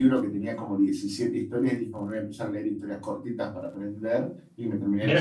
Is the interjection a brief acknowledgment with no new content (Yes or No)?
No